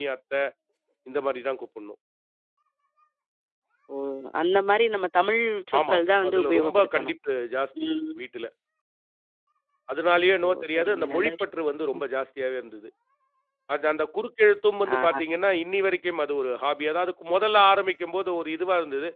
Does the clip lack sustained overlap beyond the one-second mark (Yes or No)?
No